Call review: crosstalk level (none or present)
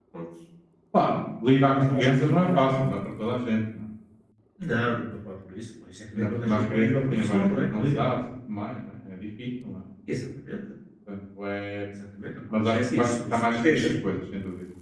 present